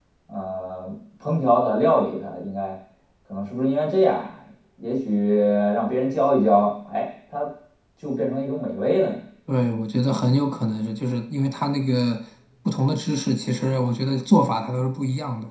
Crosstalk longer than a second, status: none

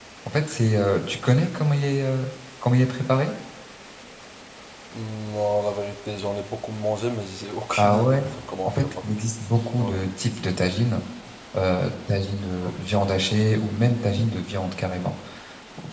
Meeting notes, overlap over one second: none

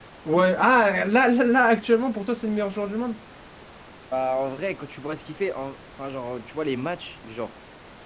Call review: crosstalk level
none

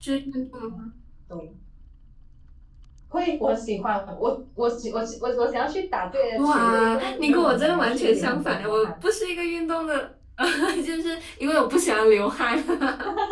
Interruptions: present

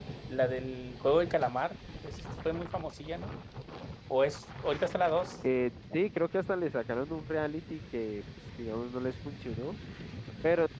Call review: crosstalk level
none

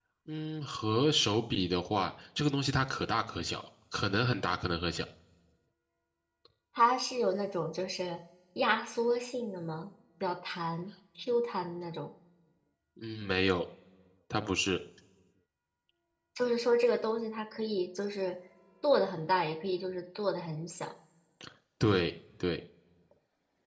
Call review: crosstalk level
none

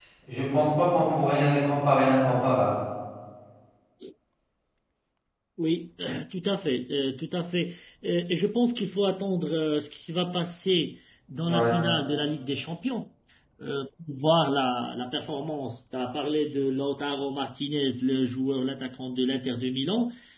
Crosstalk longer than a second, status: none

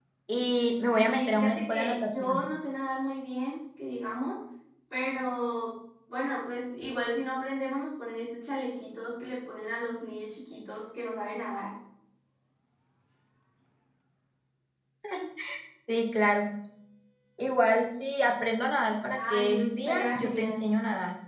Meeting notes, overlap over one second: present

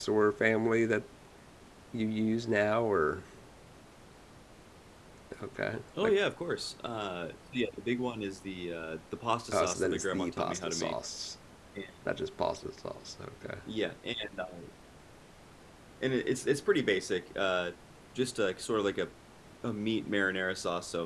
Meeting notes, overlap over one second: present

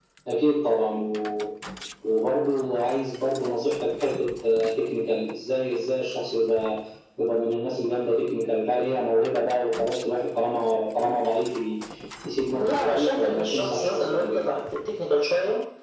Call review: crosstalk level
present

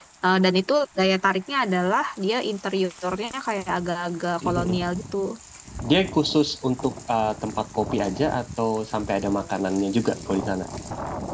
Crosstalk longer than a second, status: none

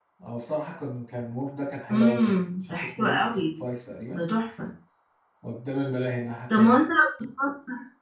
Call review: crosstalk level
present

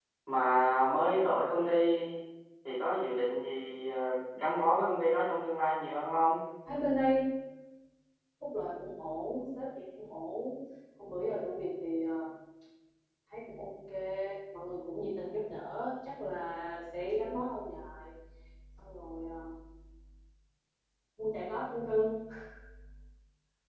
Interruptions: none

